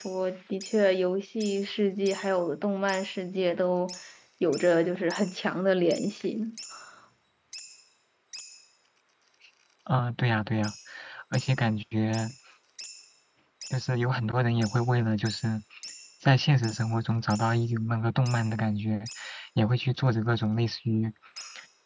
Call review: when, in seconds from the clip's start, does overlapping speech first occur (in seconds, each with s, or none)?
none